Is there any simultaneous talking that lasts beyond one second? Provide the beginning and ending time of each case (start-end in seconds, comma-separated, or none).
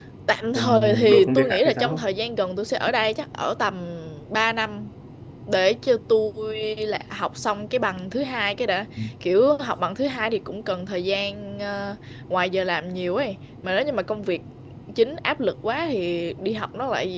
0.6-2.0